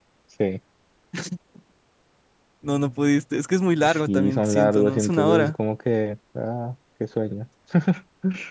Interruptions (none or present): present